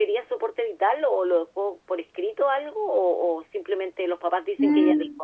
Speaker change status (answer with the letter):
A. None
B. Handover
B